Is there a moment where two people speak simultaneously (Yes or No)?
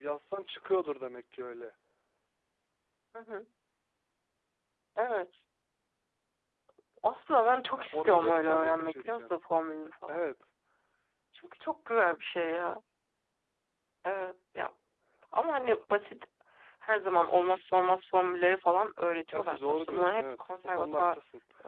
Yes